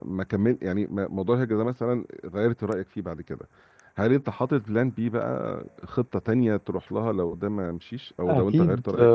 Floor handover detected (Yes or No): Yes